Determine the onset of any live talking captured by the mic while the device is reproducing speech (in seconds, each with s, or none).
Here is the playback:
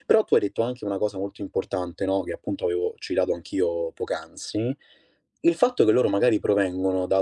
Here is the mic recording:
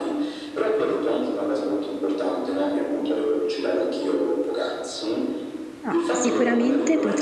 5.8 s